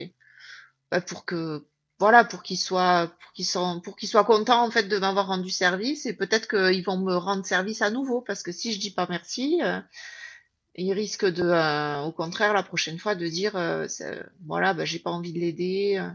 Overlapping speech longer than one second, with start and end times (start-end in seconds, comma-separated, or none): none